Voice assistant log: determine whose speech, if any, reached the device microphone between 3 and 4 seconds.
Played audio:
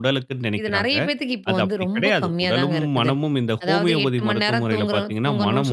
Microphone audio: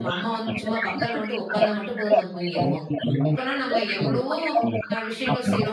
both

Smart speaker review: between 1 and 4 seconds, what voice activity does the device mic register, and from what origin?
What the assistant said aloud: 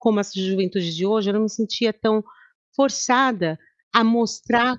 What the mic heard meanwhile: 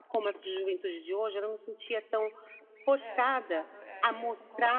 both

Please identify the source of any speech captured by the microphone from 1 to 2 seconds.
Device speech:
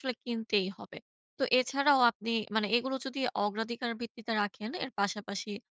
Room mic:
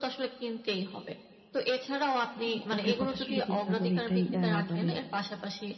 echo only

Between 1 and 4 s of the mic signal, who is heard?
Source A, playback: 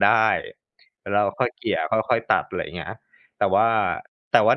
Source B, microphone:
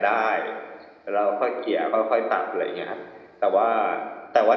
echo only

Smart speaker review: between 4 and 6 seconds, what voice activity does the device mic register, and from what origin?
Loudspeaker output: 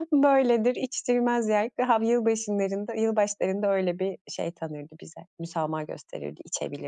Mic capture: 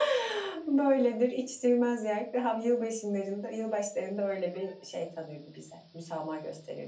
echo only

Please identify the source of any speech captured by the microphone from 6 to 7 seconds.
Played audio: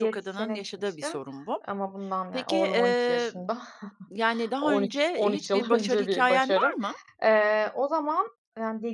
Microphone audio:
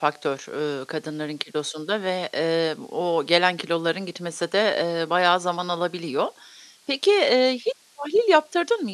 user only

